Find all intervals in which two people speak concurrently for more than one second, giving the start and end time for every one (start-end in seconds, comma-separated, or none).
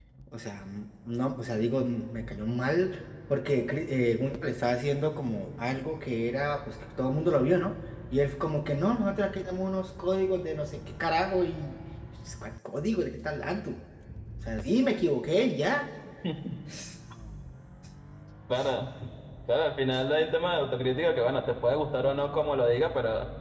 none